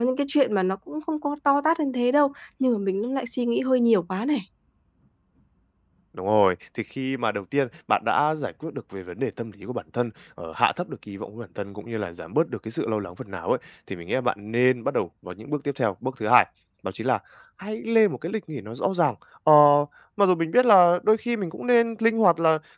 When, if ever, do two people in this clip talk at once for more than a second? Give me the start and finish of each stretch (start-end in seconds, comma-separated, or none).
none